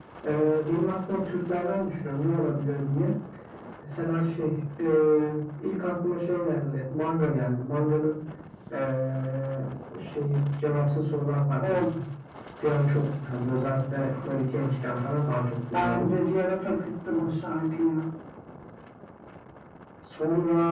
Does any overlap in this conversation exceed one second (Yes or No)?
No